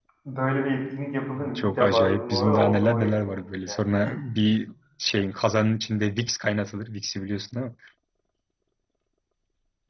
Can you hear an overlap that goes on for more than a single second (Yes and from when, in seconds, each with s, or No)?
Yes, from 1.4 s